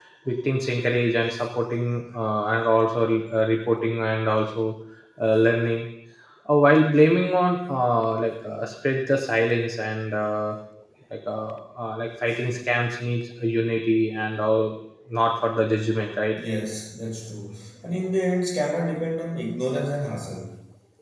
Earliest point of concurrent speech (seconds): none

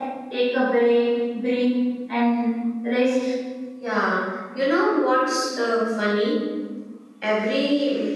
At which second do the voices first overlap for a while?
none

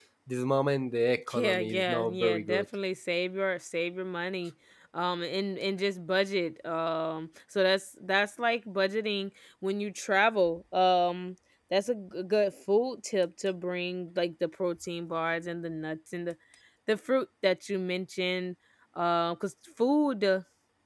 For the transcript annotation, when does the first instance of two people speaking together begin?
1.3 s

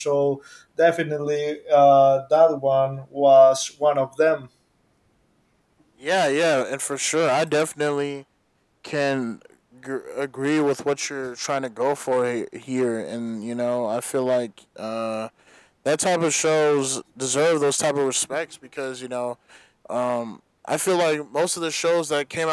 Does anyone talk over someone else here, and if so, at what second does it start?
none

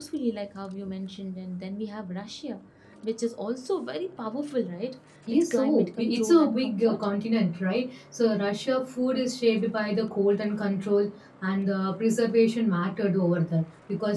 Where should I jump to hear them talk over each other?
5.3 s

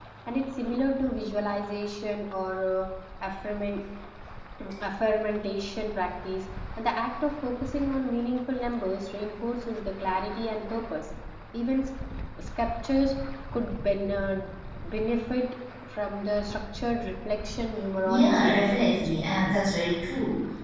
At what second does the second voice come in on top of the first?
18.0 s

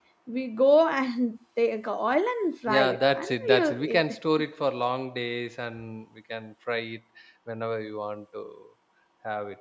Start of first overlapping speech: 2.7 s

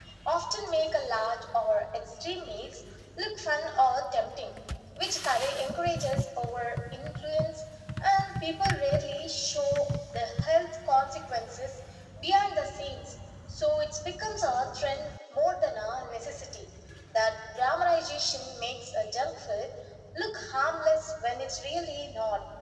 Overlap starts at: none

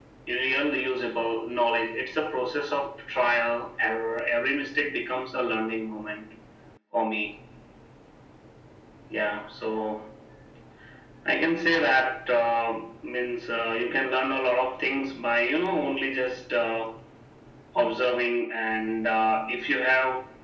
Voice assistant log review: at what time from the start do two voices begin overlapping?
none

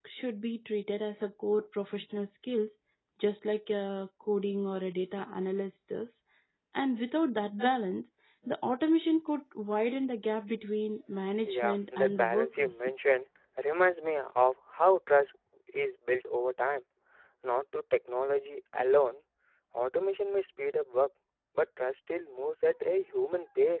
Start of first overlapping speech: 11.4 s

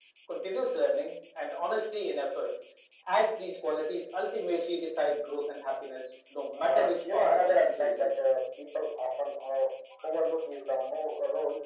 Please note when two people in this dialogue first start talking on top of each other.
6.6 s

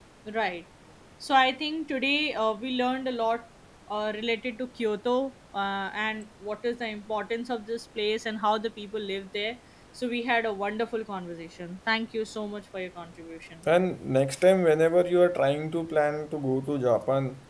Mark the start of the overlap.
none

